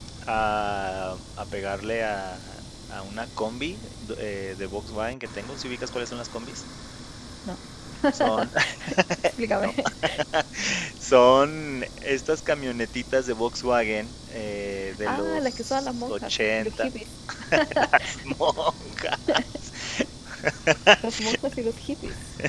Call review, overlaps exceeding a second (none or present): present